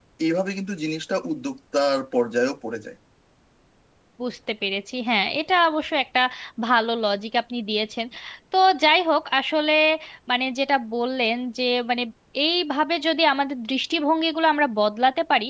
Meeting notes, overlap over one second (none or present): none